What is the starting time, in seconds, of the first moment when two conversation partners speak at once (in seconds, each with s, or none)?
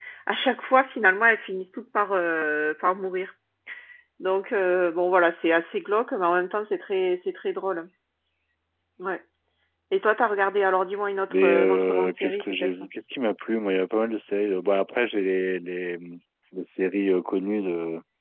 11.3 s